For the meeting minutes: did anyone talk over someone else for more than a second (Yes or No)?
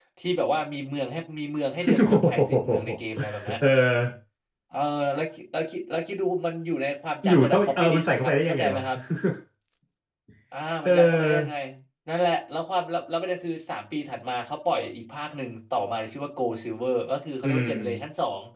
Yes